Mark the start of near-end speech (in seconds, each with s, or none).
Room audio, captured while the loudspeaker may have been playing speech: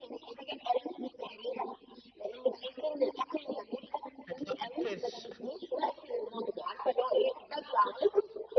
4.3 s